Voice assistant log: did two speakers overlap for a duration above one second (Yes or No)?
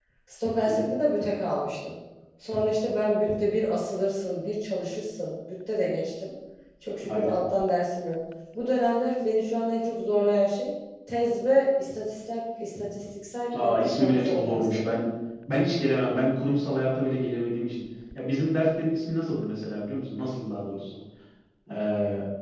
Yes